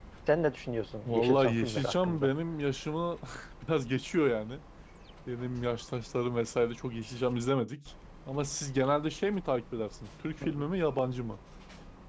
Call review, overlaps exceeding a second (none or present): present